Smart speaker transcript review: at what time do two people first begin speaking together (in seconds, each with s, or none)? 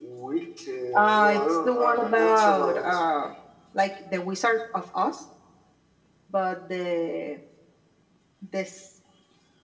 0.9 s